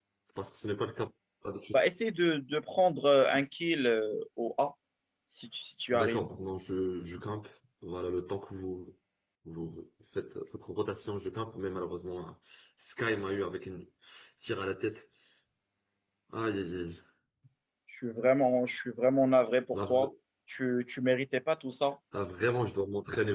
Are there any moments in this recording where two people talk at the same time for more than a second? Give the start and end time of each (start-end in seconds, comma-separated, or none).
none